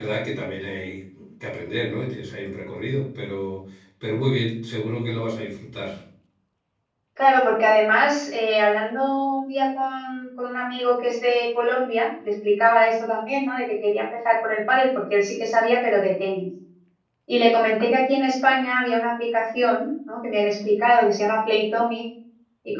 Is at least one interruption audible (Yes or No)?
No